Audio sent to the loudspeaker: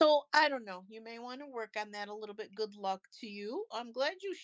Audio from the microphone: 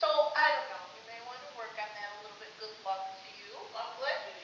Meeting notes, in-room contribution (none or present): none